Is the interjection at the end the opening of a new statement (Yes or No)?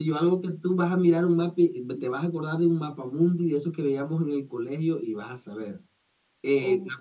No